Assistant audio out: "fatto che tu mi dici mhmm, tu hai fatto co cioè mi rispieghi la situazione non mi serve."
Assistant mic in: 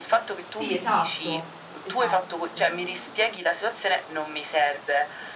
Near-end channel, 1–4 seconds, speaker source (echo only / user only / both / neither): both